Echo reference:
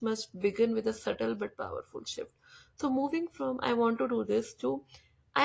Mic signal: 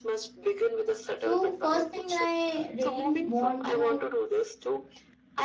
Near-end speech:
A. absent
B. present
B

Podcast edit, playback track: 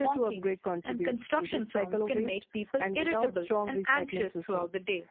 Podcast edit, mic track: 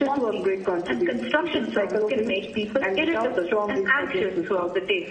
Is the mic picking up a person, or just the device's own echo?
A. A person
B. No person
B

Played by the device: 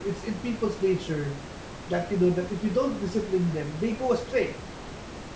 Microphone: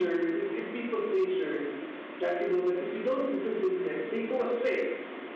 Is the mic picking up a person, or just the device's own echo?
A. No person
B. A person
A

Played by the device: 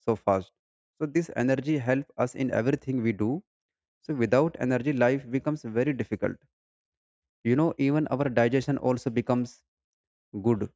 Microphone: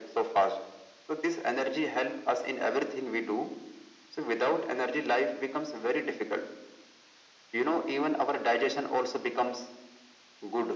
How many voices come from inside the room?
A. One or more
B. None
B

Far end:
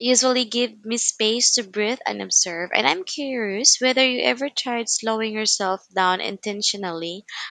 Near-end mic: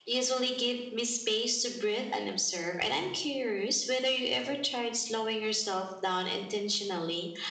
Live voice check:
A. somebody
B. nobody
B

